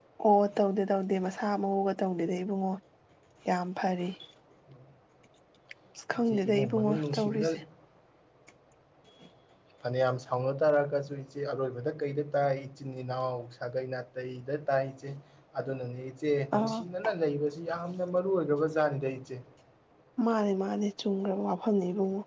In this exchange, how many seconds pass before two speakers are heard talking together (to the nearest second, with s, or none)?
6 s